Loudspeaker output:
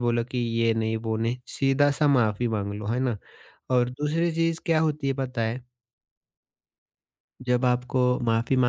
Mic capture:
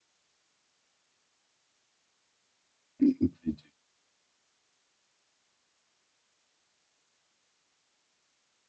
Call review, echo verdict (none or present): none